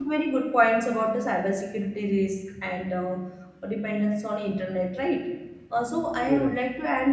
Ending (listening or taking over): listening